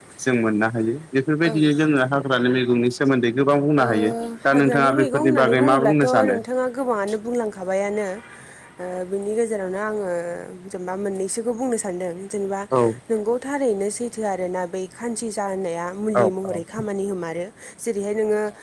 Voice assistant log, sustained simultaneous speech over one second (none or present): present